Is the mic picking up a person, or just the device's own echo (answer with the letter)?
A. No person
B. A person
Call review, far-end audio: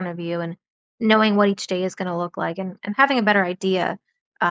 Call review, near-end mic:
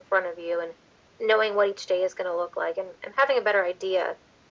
A